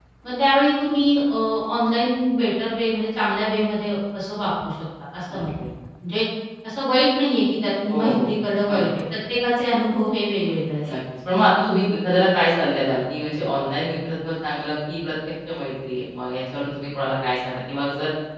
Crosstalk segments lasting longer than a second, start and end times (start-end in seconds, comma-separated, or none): none